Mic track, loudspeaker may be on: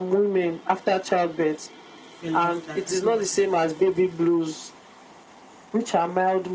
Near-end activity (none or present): present